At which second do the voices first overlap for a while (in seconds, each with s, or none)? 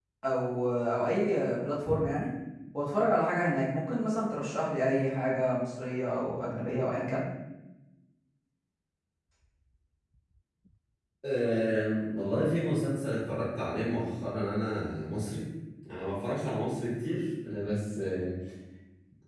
none